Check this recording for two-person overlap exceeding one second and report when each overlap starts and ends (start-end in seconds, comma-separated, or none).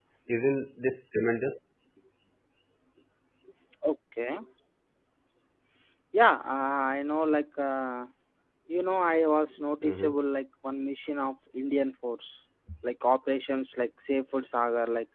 none